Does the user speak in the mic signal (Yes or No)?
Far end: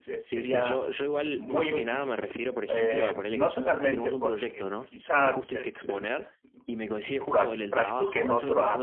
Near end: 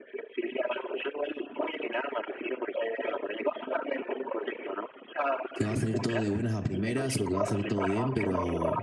Yes